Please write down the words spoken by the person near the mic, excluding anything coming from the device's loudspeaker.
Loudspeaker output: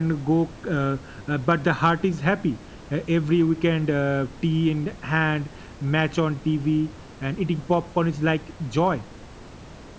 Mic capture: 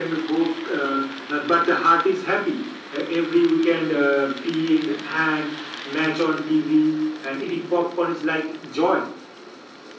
none

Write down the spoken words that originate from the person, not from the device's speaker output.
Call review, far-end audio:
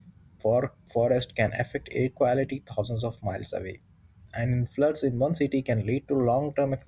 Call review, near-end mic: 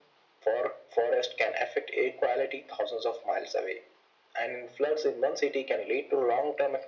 none

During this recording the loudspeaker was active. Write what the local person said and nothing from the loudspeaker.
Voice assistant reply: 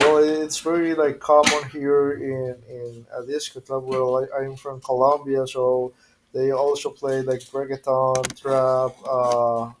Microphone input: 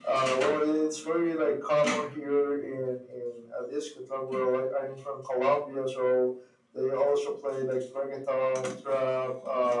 none

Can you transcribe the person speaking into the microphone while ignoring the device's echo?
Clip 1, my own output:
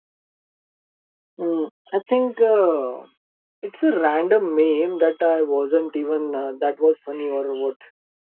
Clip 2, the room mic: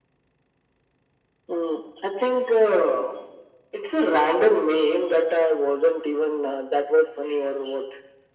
none

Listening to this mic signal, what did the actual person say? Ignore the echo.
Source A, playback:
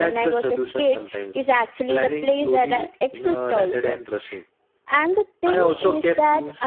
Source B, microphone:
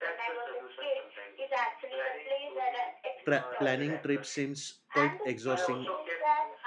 pra- planning trips seems quite exhausting,

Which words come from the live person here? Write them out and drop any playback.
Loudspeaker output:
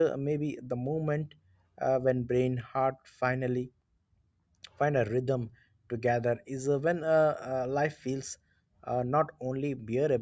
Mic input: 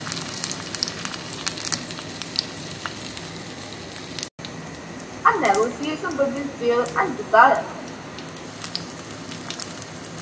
a negotiation between fear and desire,

